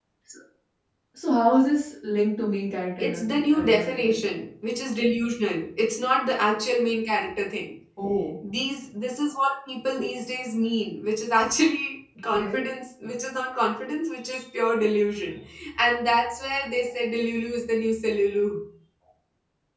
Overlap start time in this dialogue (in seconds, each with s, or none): 3.0 s